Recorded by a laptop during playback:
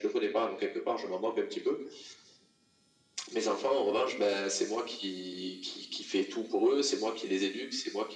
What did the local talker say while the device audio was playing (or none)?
none